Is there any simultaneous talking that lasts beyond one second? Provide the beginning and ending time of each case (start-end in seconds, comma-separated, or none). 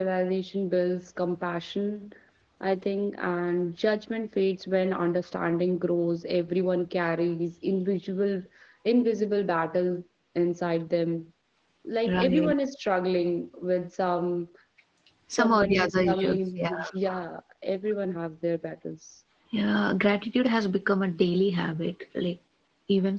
15.3-16.7